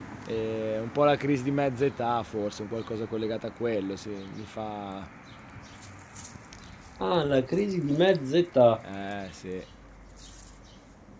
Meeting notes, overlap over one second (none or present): none